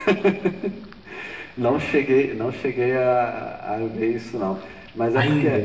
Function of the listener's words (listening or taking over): listening